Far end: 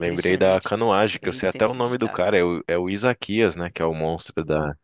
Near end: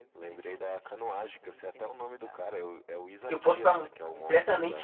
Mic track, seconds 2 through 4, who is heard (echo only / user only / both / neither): both